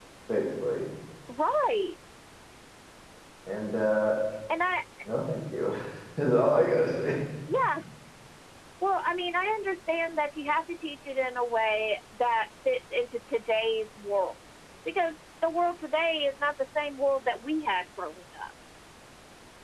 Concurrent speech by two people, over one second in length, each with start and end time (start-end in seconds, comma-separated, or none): none